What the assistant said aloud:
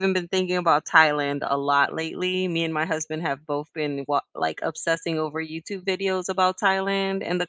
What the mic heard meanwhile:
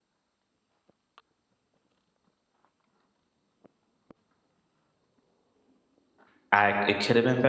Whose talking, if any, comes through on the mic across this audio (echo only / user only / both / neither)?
user only